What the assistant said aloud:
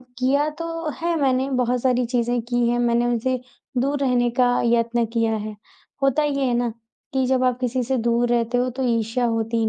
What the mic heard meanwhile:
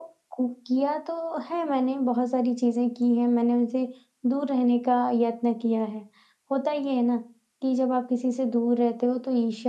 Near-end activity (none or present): none